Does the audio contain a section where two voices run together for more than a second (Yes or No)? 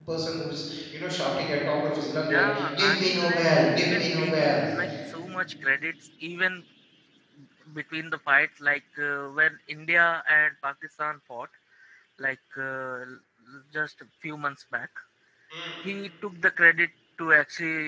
Yes